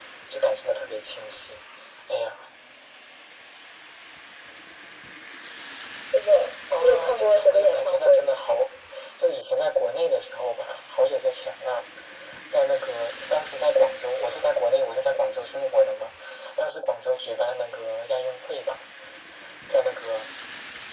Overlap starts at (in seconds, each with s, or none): 6.8 s